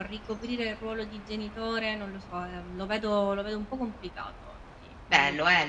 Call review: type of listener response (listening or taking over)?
taking over